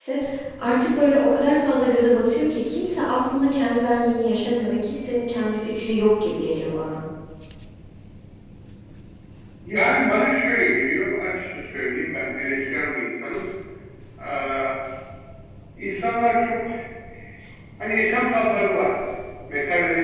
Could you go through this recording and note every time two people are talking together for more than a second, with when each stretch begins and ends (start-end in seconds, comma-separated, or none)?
none